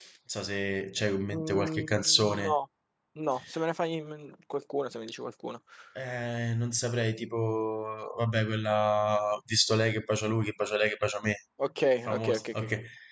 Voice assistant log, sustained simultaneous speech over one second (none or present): present